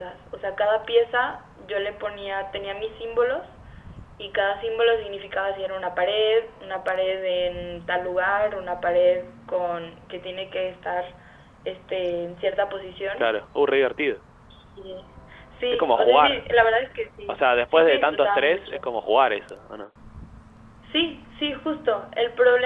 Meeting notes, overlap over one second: present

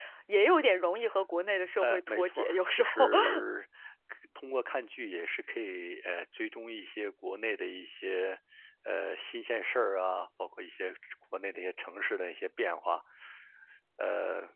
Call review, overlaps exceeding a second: present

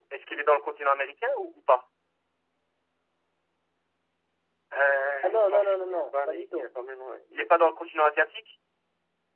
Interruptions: present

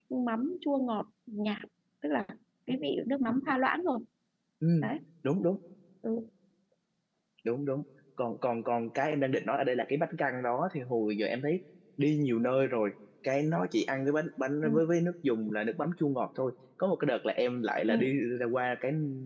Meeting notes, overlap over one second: none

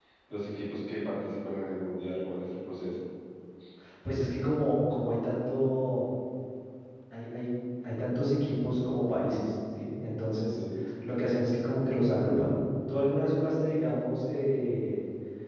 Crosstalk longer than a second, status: none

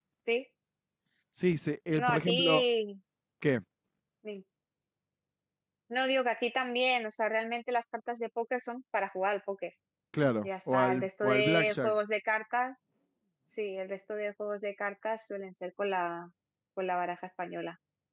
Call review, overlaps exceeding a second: present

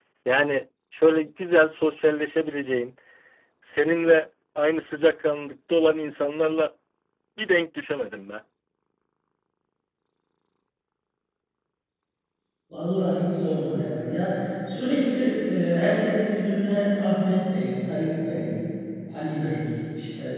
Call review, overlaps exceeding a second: none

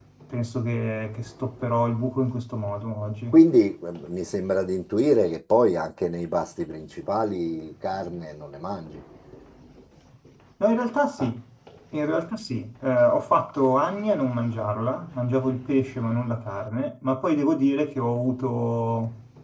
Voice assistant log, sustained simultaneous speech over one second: none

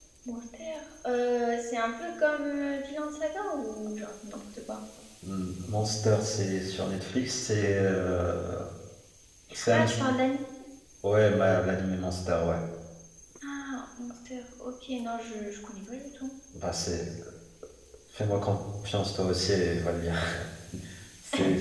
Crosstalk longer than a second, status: none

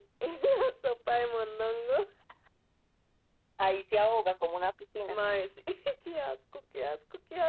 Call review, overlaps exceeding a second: none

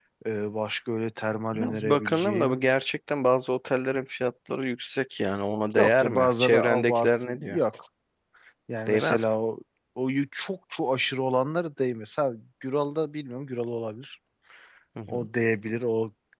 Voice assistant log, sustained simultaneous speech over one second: present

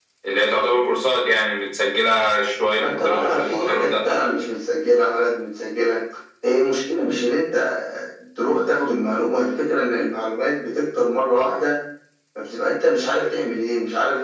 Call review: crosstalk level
present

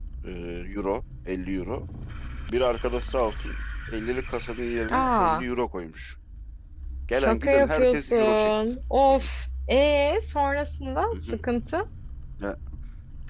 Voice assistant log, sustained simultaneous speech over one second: present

